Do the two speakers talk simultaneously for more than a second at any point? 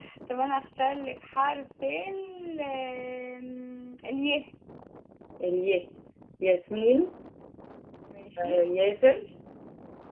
No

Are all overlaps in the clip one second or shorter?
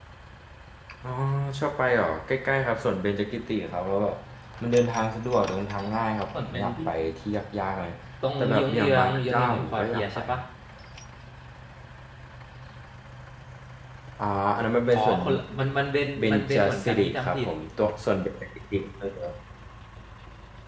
No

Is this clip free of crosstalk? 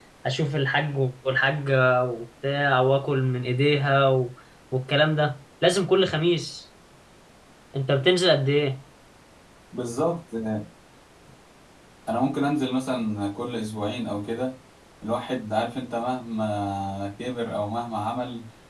Yes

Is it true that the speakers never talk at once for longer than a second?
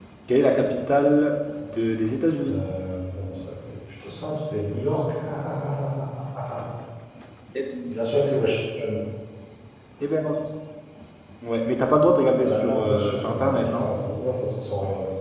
No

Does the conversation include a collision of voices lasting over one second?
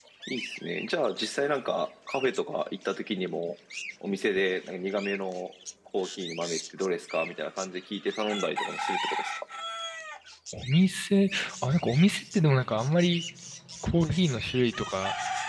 No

